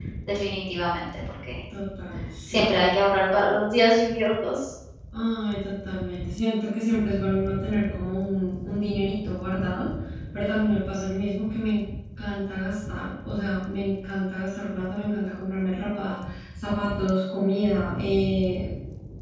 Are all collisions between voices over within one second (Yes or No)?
Yes